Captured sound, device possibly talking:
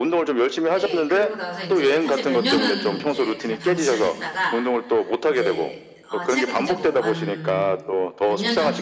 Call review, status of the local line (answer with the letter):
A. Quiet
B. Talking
B